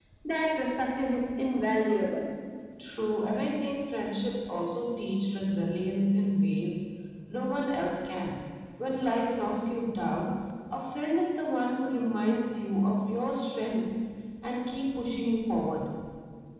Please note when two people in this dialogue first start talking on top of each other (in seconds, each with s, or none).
none